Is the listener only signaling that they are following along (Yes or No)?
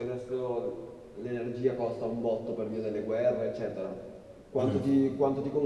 Yes